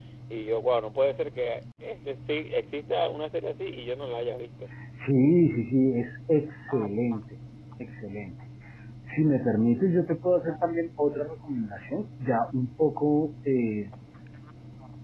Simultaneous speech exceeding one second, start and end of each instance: none

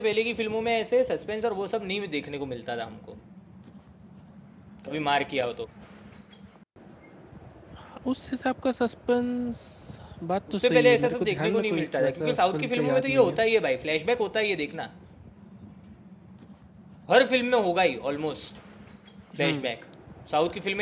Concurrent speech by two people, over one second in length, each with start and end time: 10.6-13.4

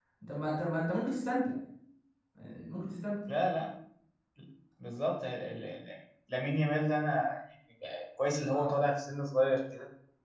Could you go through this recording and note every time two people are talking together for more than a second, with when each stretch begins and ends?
none

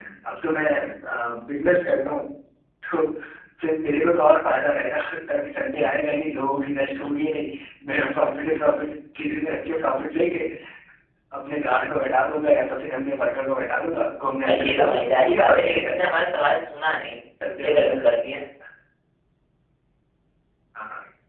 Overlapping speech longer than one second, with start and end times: 14.4-16.1

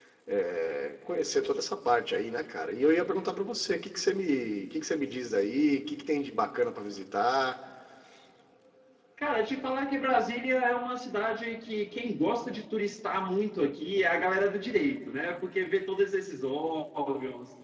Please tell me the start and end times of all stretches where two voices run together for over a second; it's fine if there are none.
none

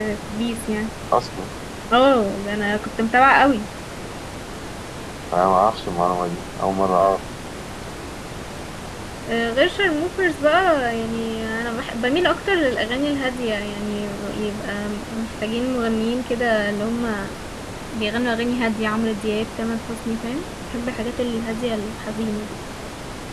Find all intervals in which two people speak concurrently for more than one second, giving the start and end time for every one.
none

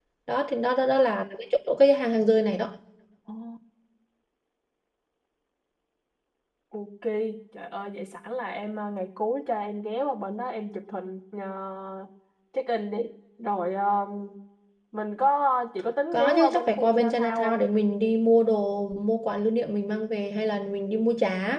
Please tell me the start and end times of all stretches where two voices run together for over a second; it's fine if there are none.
16.1-17.6

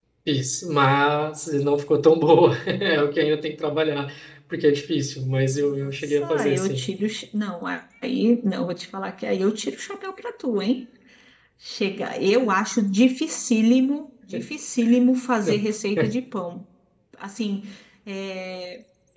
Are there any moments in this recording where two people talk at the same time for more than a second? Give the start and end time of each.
5.6-6.8

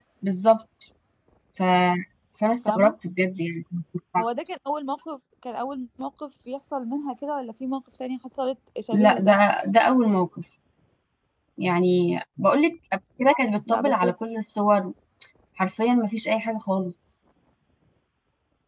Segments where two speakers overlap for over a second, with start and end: none

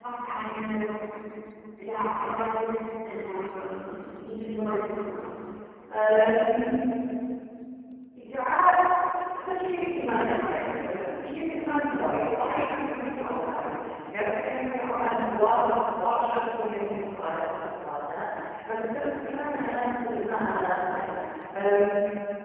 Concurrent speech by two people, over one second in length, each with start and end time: none

